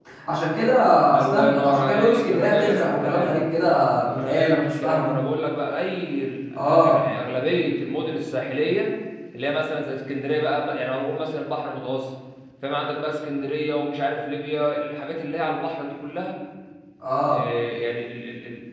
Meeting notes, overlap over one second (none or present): present